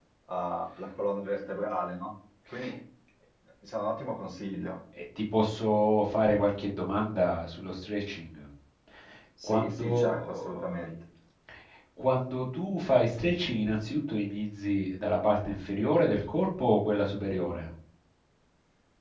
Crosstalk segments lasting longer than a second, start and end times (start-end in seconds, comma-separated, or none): 9.4-10.8